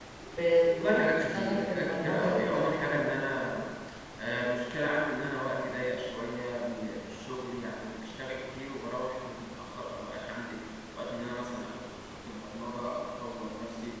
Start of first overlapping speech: 0.8 s

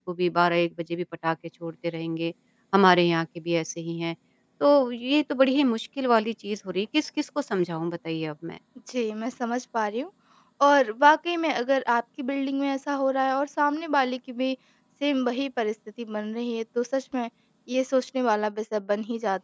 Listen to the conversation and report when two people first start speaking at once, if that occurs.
none

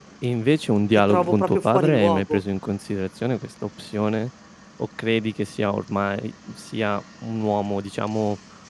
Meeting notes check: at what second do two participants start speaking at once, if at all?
1.1 s

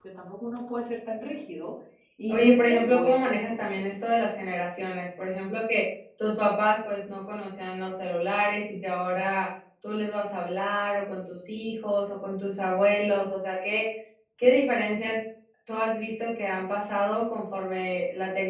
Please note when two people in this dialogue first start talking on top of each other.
2.3 s

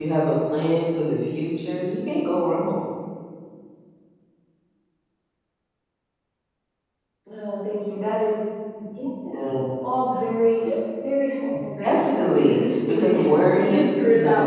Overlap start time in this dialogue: 11.8 s

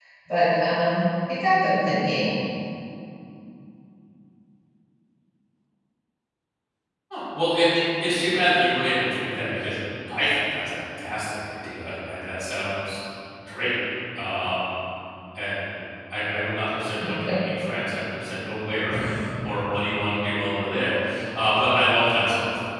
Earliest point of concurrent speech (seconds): none

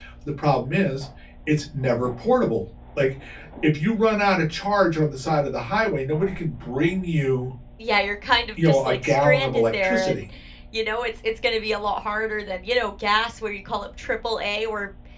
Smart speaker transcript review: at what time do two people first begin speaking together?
8.6 s

